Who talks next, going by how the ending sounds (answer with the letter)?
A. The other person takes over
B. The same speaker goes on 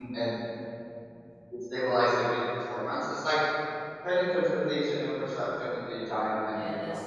A